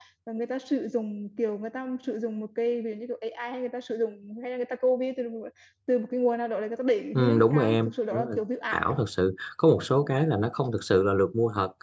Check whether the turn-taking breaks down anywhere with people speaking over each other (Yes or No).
Yes